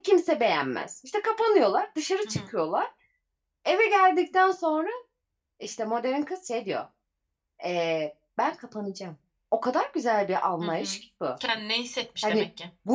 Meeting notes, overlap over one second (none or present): none